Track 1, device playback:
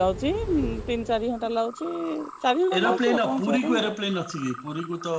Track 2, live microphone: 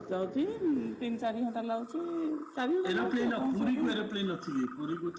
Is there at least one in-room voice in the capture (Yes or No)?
No